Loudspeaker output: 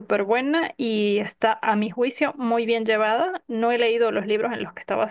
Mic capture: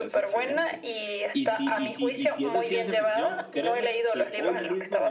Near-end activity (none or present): present